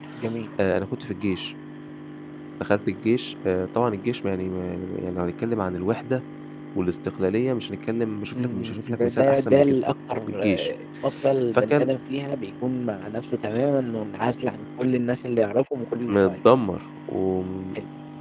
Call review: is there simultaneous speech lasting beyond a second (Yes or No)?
Yes